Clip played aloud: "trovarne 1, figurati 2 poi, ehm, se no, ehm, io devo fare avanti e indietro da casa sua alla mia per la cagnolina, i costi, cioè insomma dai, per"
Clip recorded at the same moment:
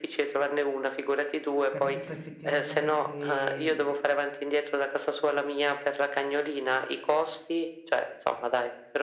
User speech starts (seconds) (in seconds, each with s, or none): 1.7 s